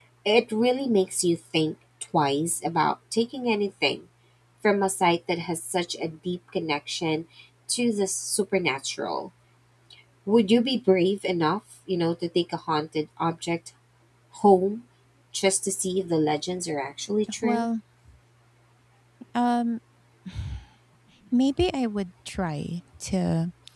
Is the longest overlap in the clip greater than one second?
No

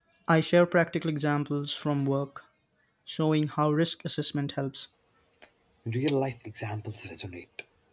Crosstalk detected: No

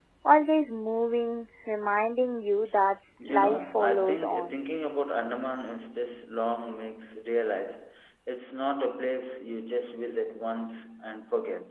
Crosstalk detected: Yes, from 3.2 s

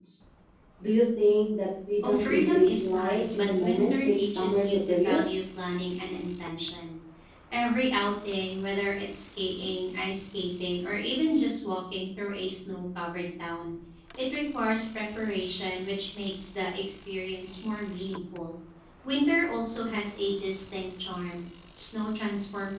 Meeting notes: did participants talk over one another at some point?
Yes, from 2.0 s

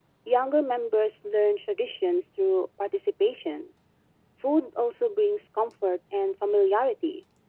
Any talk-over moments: No

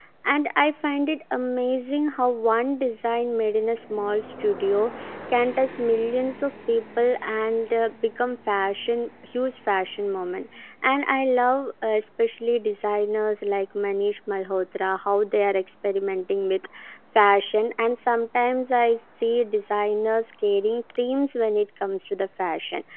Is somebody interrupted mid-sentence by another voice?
No

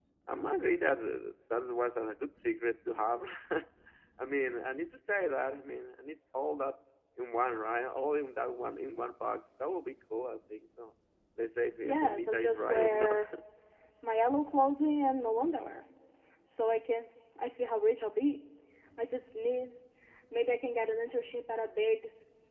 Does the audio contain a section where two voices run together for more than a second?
Yes, from 11.8 s

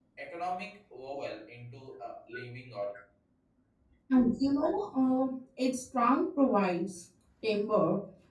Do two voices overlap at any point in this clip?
No

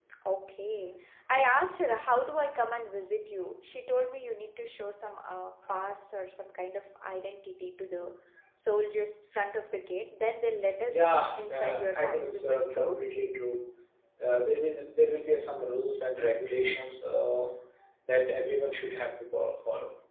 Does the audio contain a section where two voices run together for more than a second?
Yes, from 10.7 s

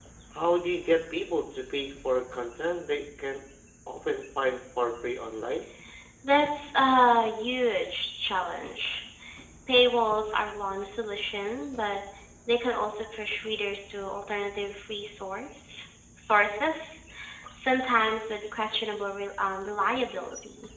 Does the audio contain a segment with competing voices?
No

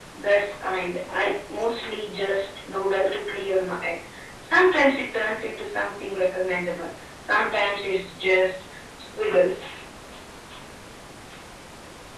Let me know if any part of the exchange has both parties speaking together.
No

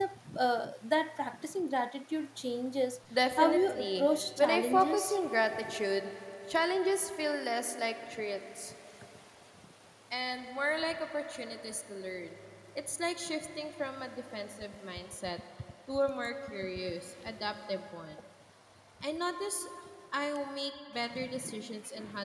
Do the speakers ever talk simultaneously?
Yes, from 3.4 s

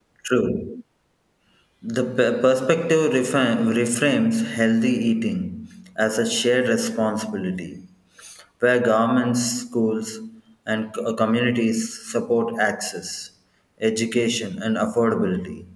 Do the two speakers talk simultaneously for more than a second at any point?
No

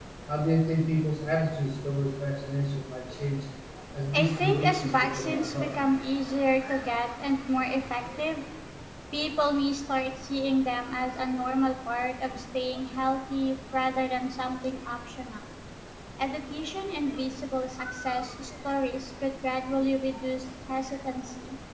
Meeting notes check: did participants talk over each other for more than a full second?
Yes, from 4.1 s

